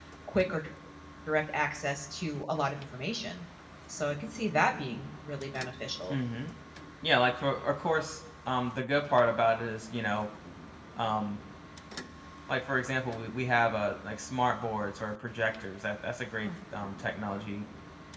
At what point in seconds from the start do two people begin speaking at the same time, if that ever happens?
none

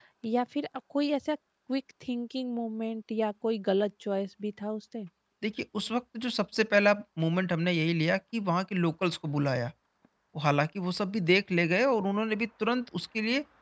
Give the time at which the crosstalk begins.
none

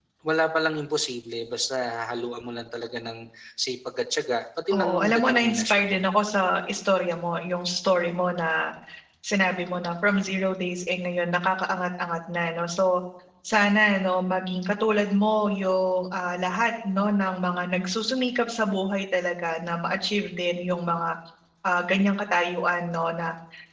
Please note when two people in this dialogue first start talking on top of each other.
4.7 s

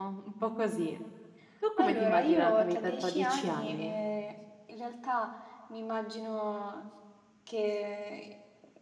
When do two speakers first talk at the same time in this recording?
1.8 s

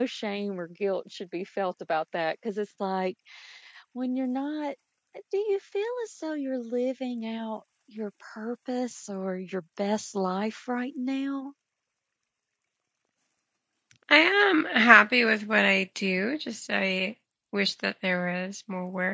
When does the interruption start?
none

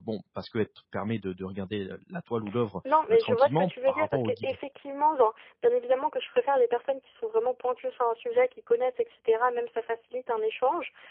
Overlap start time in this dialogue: 2.8 s

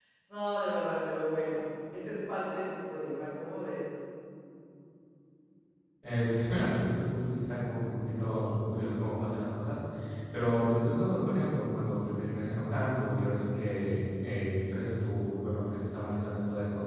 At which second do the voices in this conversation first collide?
none

